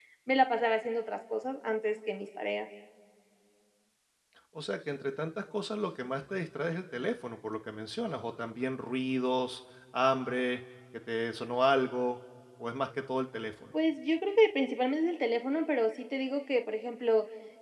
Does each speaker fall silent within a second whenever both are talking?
Yes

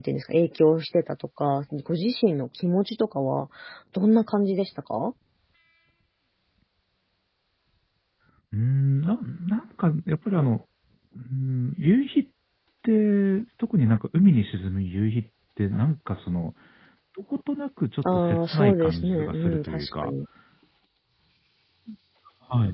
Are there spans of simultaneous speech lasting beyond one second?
Yes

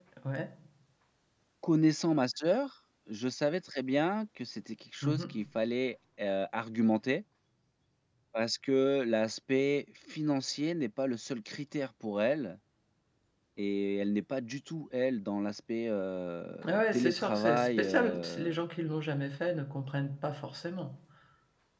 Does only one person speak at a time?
No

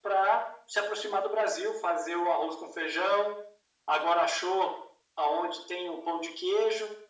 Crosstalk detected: No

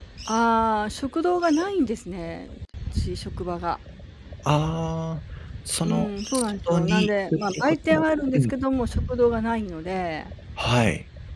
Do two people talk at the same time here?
Yes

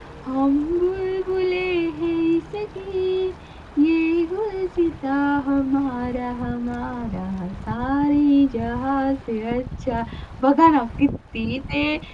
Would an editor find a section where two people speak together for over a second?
No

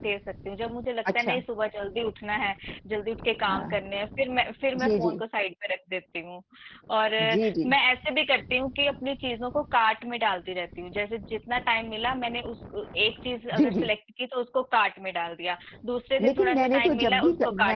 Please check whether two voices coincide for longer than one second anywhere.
Yes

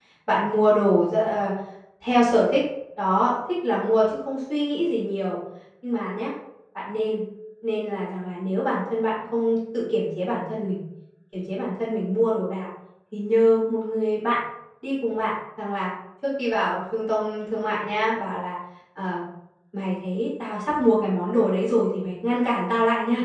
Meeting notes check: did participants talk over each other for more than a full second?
No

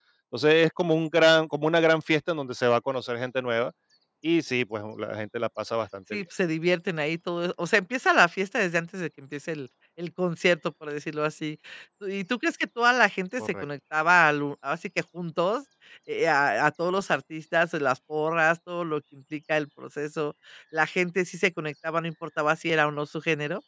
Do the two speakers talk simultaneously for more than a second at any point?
No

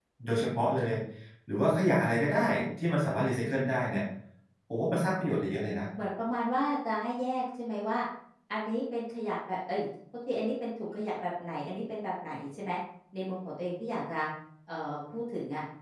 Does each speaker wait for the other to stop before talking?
Yes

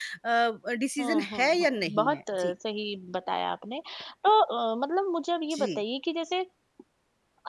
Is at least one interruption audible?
Yes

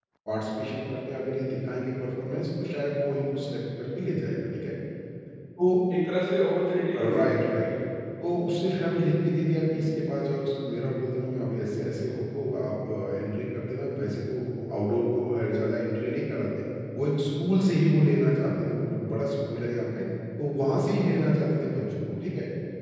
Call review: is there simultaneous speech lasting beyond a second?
No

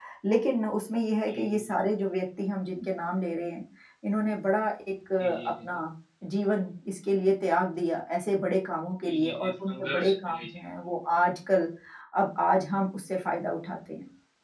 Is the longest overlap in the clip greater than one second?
Yes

